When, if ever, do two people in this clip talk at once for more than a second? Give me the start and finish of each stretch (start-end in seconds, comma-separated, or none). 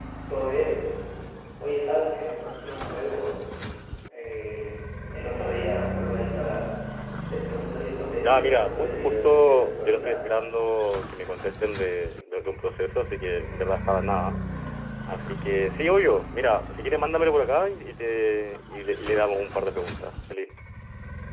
8.2-10.2